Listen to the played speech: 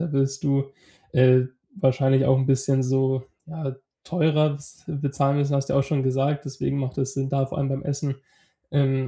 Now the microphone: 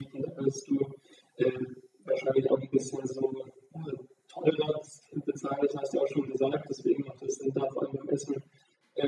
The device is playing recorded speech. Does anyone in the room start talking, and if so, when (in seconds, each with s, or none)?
none